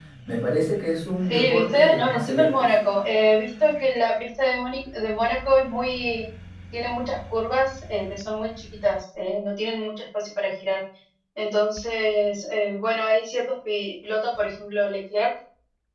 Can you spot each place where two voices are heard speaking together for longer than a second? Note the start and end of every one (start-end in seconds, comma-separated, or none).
1.3-2.7